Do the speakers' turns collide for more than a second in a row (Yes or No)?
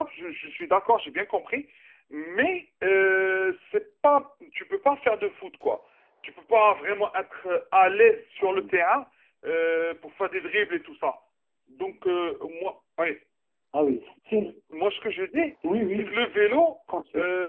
No